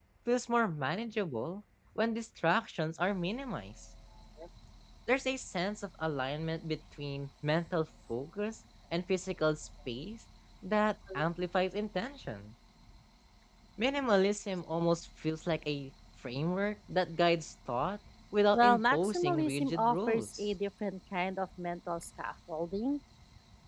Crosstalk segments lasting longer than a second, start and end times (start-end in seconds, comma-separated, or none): 18.5-20.4